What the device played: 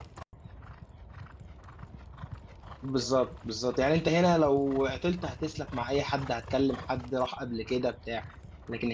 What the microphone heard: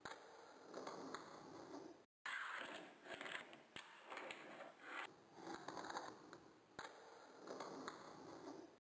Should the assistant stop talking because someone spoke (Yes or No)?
No